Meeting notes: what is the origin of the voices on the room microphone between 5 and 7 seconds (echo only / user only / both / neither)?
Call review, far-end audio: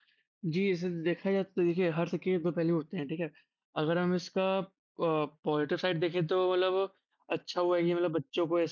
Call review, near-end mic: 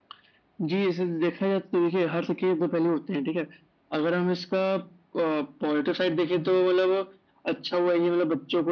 echo only